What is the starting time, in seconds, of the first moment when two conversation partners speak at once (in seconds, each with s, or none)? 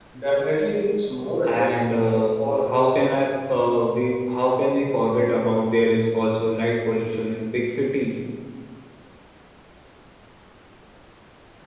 1.4 s